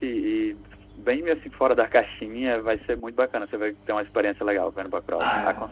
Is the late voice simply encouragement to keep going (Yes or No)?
No